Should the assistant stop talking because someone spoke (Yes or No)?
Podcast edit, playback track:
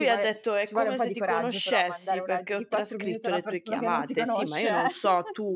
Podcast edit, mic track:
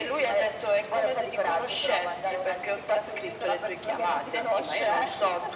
No